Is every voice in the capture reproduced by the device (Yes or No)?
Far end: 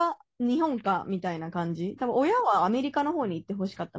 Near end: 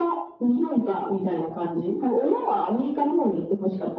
Yes